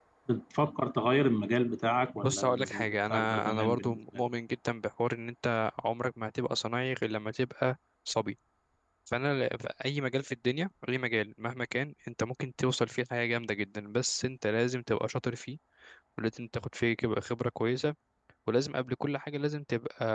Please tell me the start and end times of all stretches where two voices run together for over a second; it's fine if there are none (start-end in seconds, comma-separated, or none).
2.1-4.2